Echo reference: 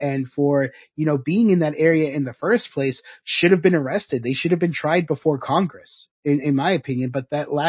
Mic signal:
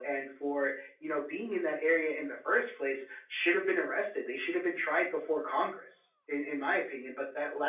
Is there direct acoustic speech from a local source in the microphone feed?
No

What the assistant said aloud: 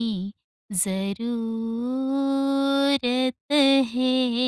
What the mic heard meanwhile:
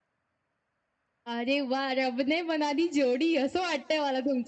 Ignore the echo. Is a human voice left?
Yes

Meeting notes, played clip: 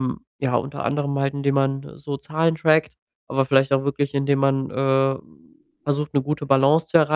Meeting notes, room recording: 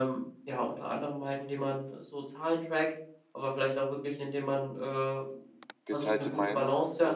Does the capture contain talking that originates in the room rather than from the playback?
Yes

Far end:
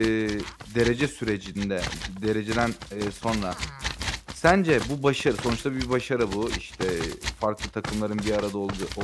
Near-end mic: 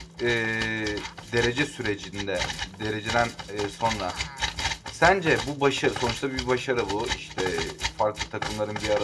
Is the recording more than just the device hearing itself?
No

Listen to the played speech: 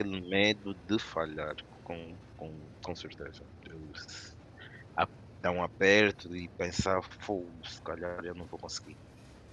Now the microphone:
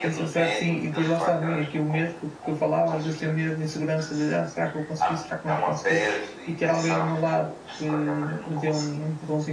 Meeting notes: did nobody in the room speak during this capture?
No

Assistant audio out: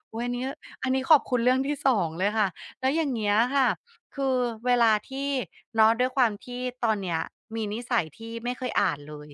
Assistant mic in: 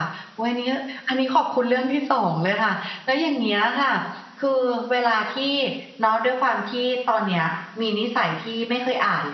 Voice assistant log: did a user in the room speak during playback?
No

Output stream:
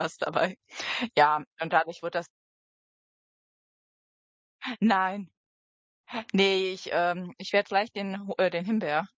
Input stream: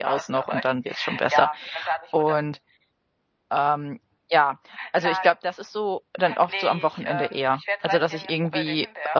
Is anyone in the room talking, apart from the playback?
Yes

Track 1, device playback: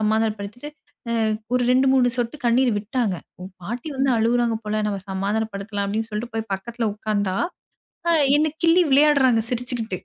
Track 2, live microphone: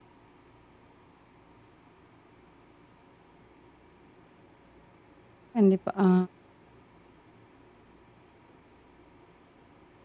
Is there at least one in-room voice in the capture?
Yes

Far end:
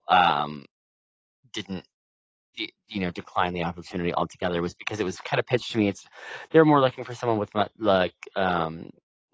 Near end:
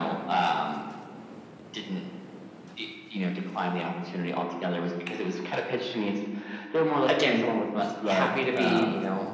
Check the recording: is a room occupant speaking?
Yes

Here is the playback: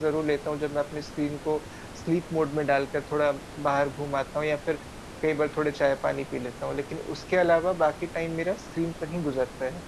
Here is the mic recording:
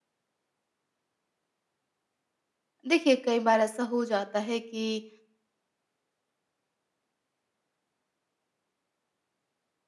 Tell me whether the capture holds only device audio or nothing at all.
No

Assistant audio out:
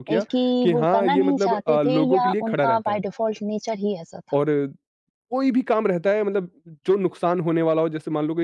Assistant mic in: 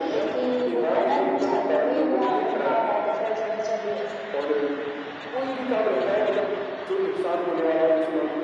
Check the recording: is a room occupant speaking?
No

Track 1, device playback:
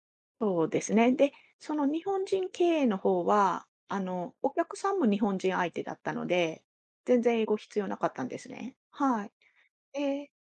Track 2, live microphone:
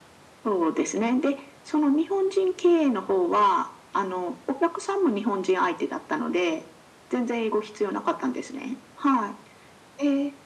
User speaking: No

